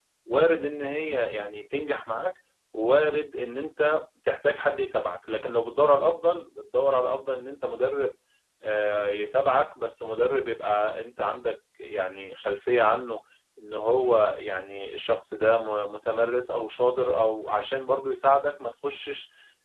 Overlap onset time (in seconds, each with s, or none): none